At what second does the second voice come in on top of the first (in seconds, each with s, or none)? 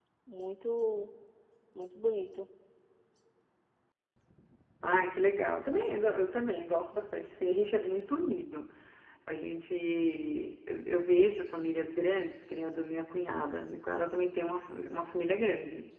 none